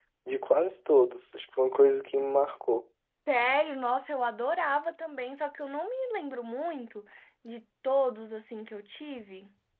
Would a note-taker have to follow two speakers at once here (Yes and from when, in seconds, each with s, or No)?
No